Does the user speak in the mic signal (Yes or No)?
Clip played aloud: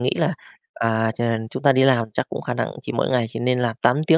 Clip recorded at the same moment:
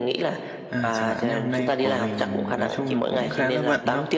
Yes